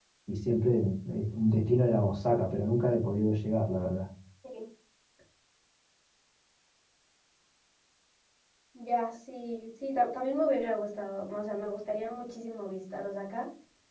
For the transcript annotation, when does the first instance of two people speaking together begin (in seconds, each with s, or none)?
none